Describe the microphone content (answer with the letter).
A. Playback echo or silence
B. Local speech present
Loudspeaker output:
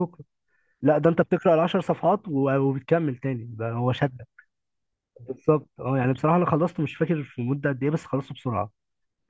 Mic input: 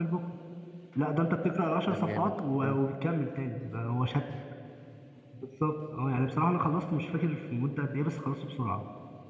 B